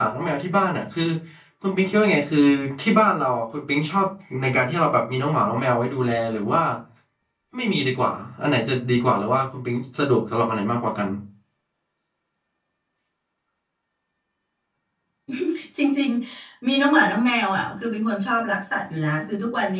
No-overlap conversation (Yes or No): Yes